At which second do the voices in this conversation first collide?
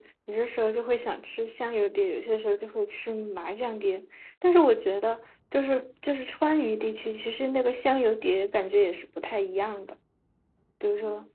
none

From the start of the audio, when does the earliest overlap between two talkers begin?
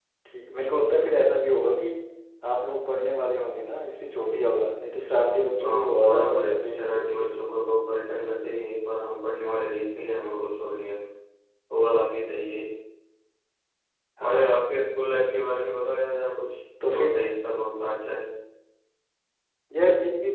5.6 s

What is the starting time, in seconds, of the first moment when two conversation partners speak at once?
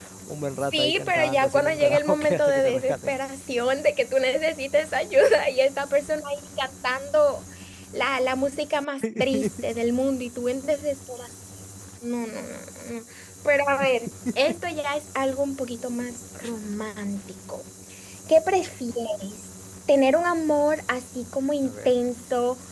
0.7 s

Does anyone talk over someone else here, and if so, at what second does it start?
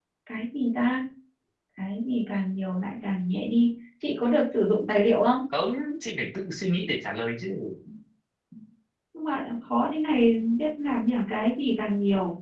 none

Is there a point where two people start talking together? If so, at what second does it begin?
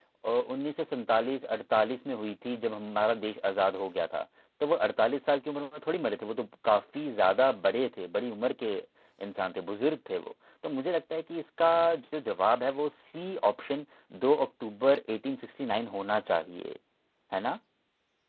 none

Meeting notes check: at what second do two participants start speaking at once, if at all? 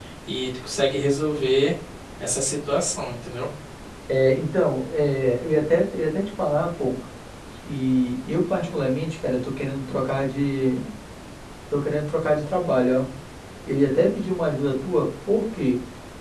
none

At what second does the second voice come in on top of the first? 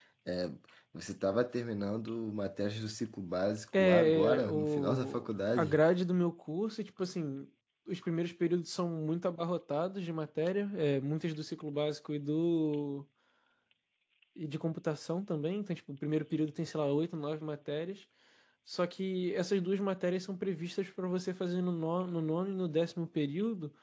3.7 s

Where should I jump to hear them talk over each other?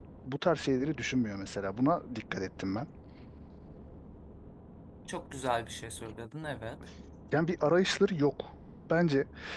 none

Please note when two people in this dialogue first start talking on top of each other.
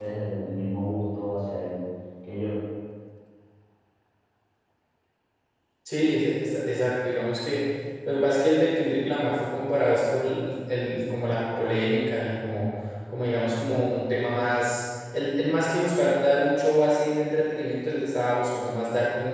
none

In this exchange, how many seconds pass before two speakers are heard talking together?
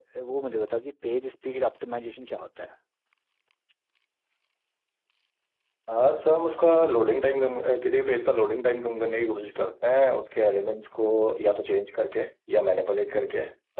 none

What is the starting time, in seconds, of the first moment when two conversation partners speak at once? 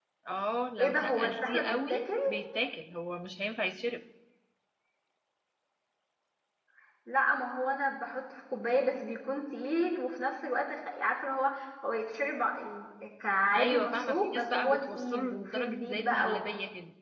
0.8 s

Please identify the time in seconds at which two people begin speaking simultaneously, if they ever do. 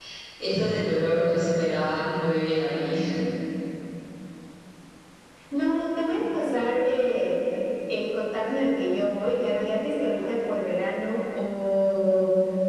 none

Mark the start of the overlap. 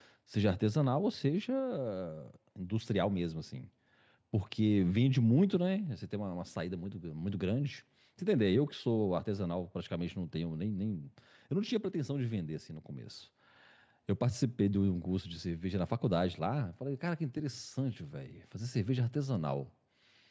none

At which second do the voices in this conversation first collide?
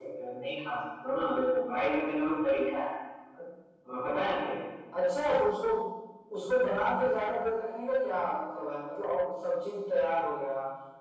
none

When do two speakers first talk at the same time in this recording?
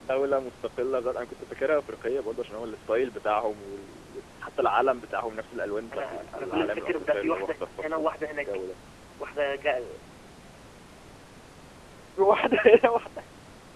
5.9 s

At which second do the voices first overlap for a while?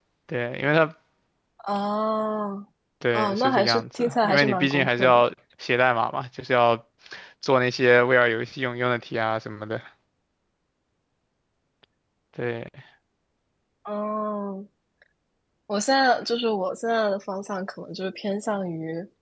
3.1 s

